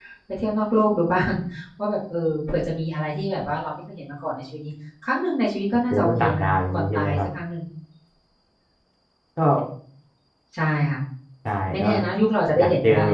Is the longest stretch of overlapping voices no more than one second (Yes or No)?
No